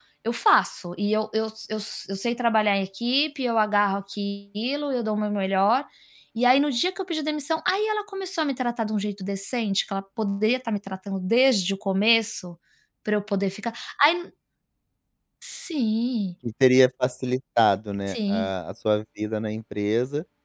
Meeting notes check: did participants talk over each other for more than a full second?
No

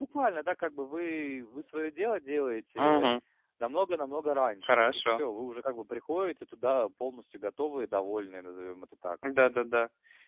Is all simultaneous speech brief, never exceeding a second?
Yes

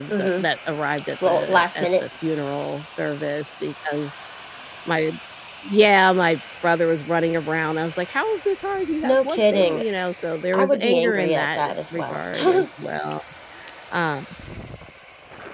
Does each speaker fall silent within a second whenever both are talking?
No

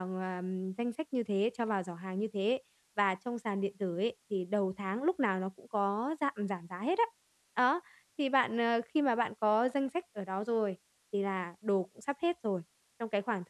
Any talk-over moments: No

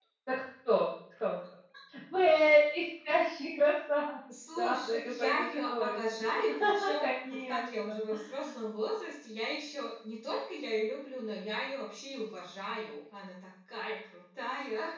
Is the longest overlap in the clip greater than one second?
Yes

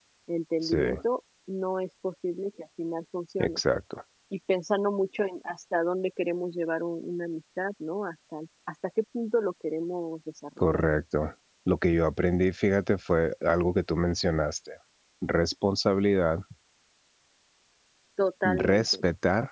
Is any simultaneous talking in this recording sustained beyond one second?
No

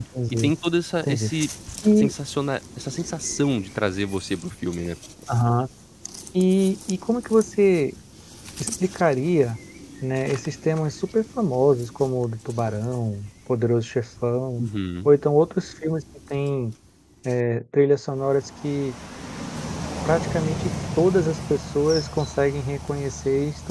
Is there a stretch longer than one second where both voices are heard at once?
No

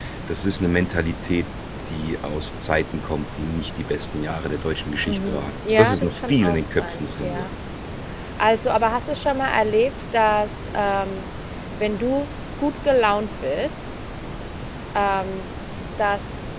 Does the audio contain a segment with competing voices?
Yes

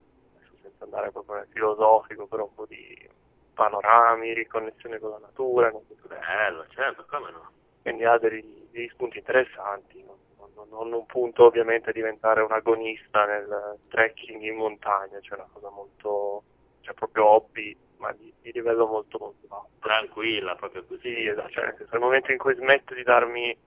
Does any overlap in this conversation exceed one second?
No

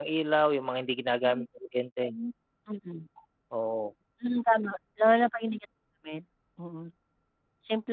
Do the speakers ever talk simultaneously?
No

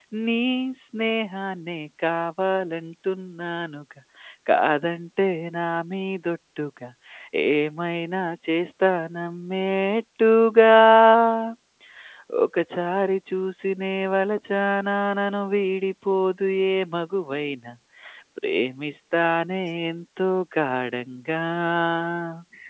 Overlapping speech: No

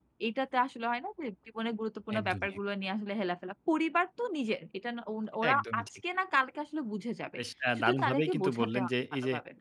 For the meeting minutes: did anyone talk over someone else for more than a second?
Yes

